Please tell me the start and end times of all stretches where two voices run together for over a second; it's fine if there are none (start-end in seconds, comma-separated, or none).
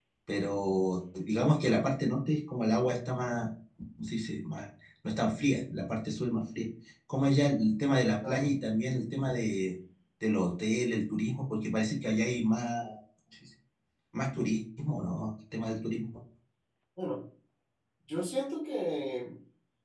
none